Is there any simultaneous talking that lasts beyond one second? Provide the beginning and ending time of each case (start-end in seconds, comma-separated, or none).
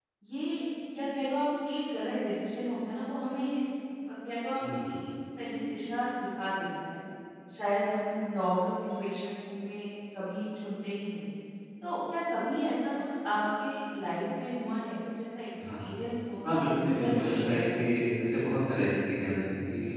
16.5-18.0